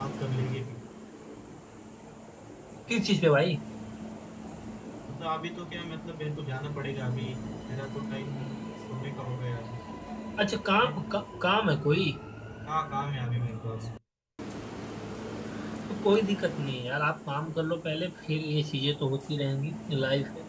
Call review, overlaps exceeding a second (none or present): none